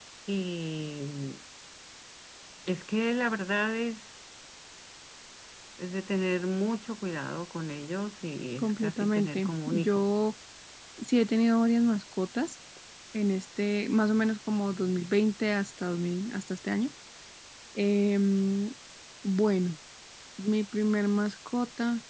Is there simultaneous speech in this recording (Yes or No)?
Yes